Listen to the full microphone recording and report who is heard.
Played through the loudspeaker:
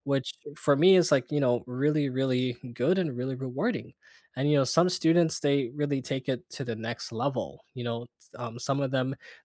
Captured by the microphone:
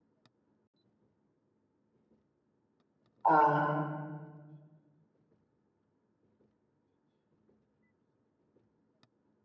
user only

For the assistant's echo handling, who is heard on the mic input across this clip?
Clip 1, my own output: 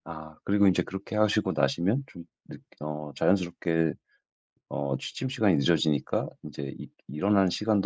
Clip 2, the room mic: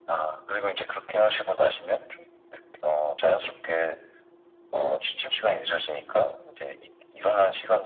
echo only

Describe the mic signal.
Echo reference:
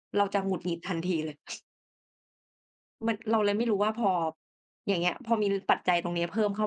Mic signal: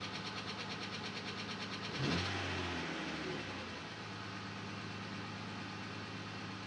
neither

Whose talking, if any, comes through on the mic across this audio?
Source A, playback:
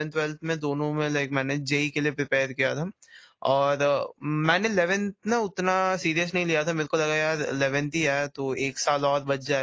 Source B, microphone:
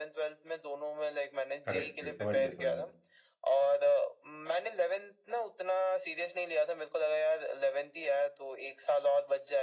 both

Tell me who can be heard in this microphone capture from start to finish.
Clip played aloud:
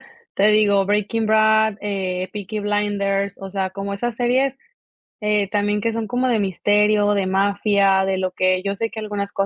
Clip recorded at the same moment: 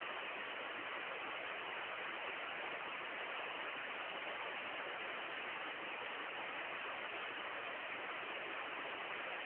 neither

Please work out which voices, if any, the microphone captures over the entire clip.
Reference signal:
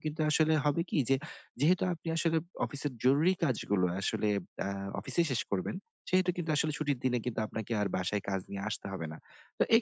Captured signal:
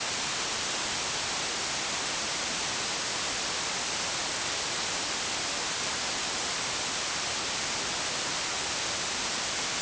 neither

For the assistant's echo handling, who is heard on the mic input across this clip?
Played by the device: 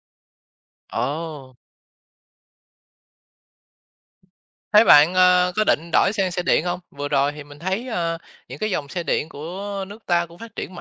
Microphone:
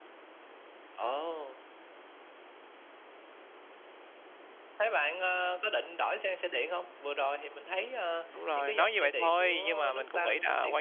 both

